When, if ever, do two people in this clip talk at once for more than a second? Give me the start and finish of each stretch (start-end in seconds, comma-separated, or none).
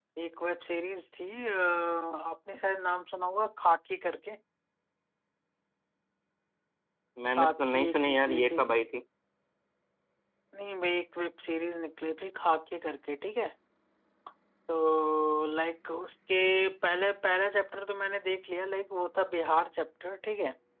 7.4-8.6